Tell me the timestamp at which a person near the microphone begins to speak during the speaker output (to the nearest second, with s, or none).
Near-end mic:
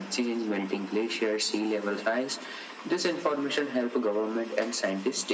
none